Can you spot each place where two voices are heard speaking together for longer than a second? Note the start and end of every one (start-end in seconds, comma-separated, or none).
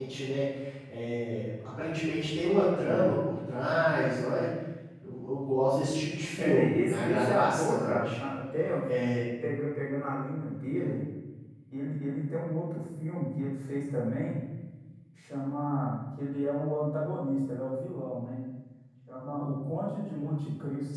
6.4-8.1